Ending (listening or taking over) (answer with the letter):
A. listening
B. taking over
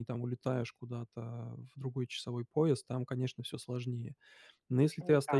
A